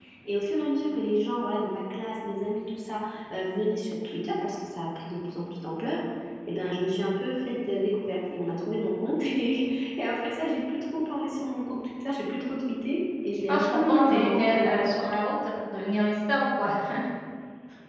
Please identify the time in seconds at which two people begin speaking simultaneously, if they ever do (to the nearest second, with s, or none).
13 s